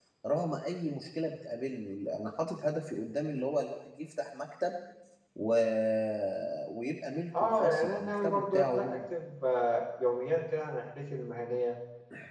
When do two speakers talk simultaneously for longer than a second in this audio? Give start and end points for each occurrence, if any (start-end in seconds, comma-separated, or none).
7.4-9.0